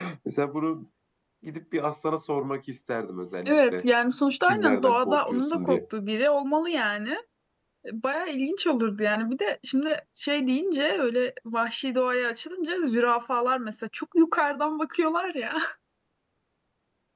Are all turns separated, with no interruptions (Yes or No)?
No